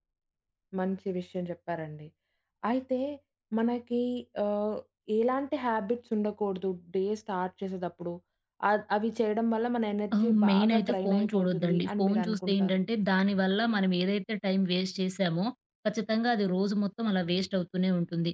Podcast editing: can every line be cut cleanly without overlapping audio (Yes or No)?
No